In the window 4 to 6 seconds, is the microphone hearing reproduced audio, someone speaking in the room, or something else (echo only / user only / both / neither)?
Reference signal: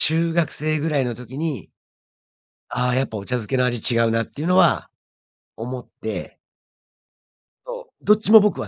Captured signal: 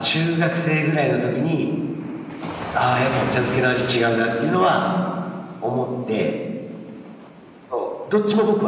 echo only